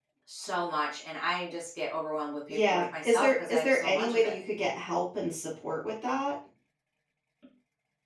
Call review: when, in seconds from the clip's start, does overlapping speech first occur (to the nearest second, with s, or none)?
2 s